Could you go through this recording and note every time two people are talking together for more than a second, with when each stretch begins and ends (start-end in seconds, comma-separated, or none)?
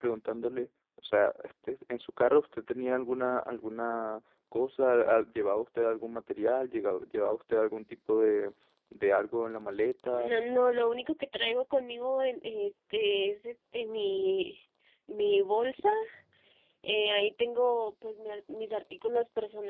none